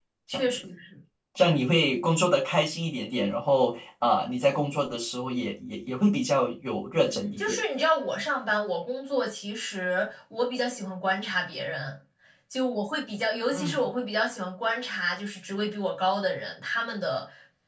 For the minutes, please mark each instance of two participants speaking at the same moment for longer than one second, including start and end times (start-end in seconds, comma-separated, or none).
none